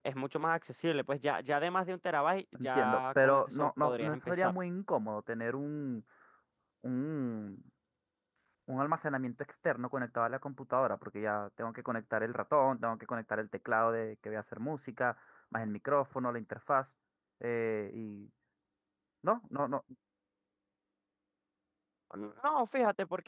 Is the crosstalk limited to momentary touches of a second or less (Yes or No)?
No